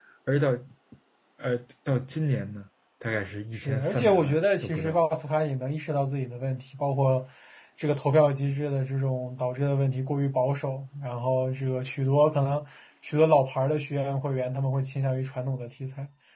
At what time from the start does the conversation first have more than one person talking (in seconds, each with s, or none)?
3.6 s